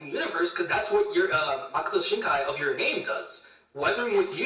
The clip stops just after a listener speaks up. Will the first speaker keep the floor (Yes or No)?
Yes